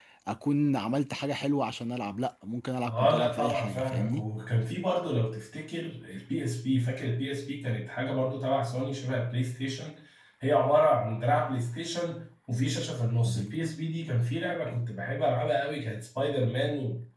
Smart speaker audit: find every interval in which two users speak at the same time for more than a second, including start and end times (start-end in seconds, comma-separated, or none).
2.9-4.2